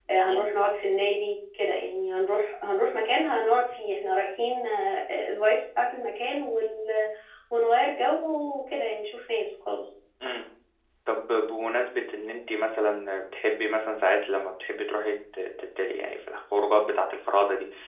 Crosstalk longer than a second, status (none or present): none